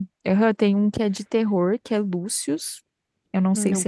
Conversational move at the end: listening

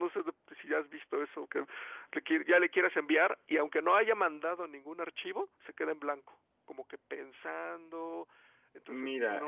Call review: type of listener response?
taking over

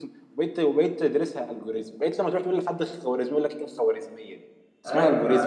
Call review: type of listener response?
taking over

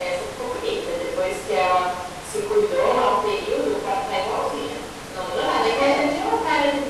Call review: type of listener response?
listening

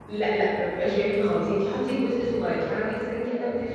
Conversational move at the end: listening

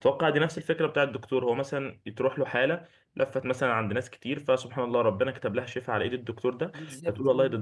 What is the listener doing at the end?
listening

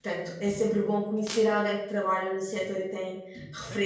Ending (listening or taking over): taking over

